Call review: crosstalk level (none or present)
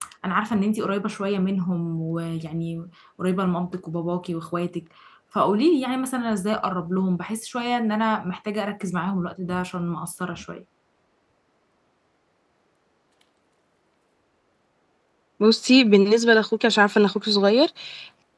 none